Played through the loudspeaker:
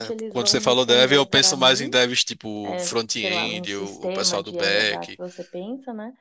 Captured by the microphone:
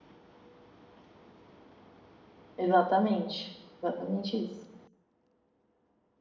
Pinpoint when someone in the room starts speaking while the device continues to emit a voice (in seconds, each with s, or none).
2.6 s